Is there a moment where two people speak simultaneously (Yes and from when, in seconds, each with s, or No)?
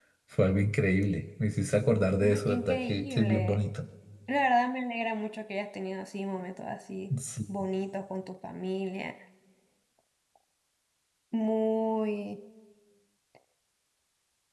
Yes, from 2.2 s